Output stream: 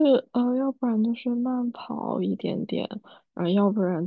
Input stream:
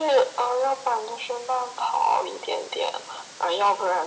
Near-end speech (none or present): none